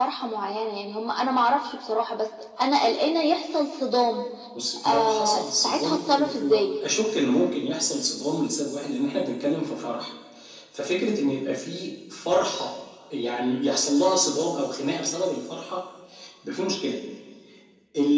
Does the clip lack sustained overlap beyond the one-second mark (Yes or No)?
No